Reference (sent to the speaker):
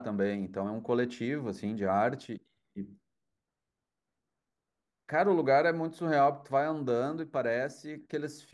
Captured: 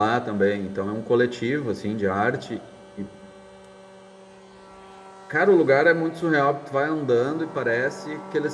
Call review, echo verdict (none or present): present